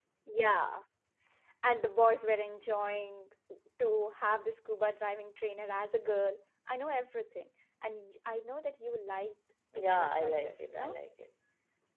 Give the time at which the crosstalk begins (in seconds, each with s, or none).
9.7 s